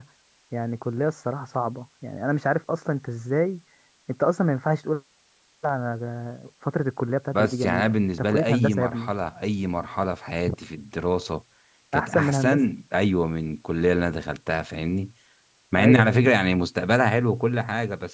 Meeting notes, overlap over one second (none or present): present